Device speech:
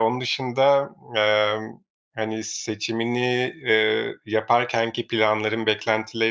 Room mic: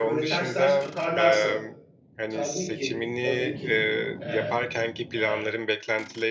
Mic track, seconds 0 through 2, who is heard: both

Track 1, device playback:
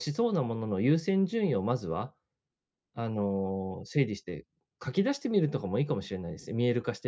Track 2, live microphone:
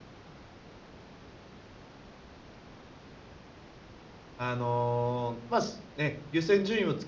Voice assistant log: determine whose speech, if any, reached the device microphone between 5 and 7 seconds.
user only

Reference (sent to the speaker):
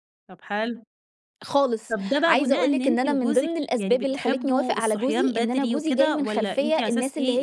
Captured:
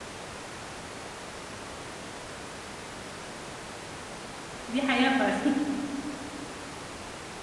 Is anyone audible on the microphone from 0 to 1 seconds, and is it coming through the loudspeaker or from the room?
neither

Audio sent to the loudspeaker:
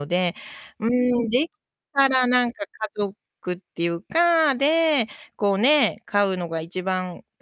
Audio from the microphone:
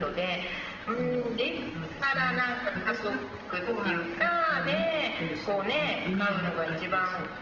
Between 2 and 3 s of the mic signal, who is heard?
both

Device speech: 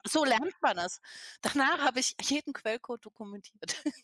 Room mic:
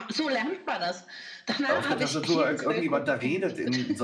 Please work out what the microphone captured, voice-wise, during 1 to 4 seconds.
both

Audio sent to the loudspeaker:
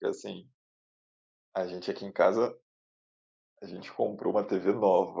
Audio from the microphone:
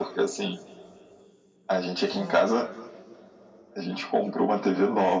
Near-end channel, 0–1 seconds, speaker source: echo only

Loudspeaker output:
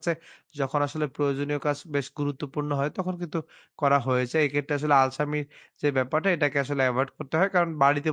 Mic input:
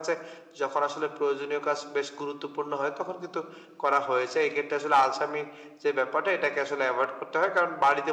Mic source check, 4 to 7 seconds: echo only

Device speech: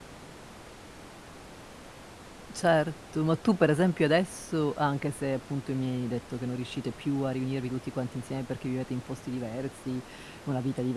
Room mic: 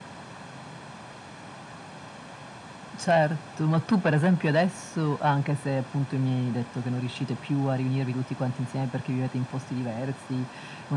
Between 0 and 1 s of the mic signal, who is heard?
neither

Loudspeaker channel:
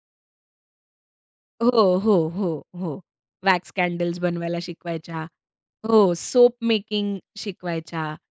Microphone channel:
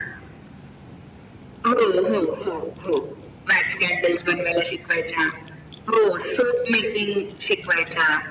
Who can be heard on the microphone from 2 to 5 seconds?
echo only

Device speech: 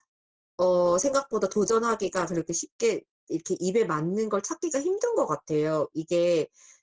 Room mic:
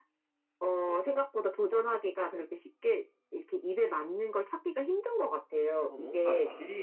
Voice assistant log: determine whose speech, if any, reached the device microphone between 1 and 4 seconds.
echo only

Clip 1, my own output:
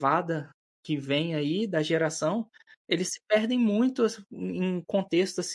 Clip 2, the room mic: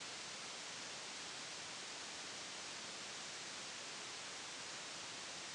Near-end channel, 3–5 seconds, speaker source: neither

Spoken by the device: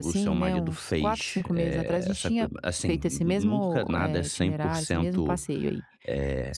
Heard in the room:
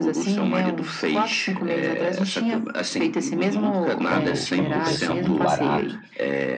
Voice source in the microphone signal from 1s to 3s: echo only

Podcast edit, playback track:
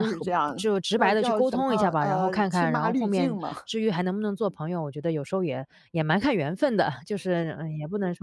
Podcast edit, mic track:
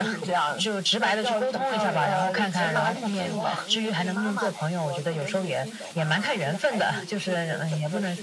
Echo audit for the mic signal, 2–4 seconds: both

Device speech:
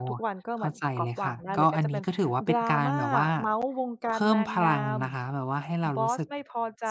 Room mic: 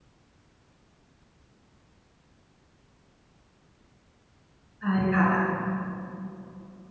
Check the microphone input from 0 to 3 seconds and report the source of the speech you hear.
neither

